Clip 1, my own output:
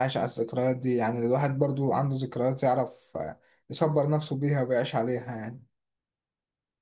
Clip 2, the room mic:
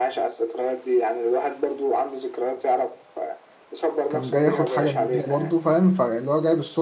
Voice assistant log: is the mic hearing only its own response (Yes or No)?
No